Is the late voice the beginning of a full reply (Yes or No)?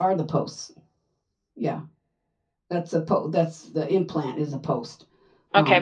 Yes